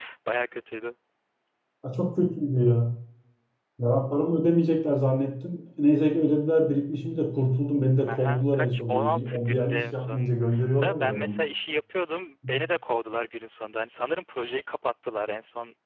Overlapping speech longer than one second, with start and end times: 8.1-10.3

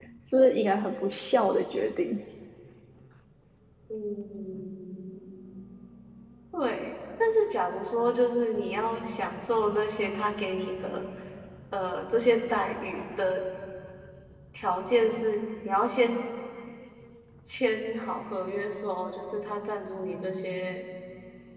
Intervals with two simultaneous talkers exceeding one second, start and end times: none

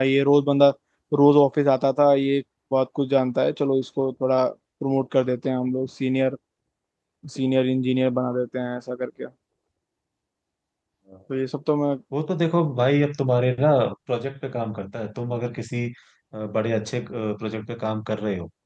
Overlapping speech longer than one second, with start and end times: none

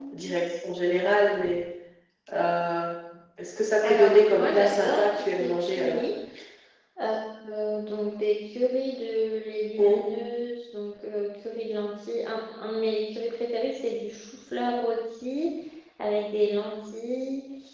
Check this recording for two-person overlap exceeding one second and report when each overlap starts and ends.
3.8-6.0

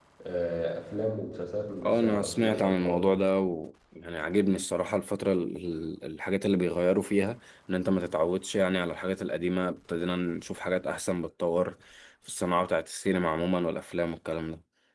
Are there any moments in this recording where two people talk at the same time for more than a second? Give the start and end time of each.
1.8-3.1

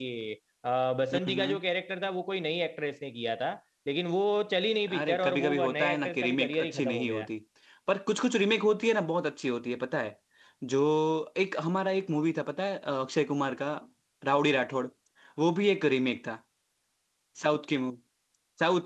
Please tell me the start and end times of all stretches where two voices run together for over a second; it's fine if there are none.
4.9-7.3

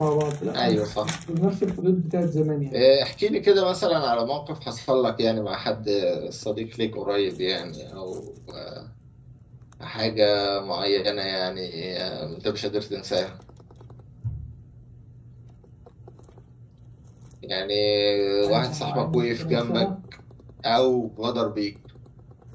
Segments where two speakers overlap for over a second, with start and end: 18.4-19.8

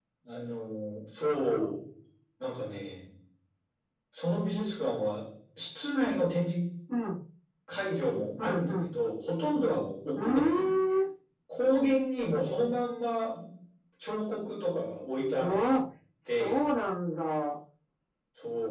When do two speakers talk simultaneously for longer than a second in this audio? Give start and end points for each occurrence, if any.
none

